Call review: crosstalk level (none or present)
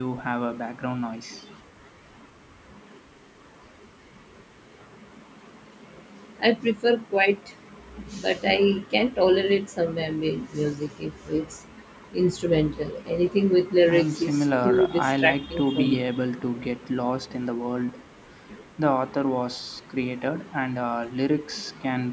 present